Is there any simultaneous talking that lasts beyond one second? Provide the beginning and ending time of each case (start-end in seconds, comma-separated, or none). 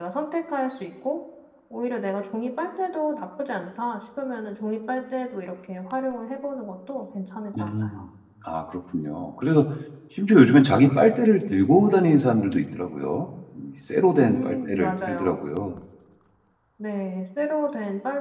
14.2-15.4